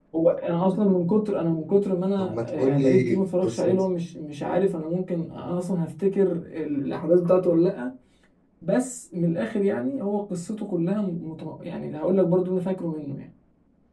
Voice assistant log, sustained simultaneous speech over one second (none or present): present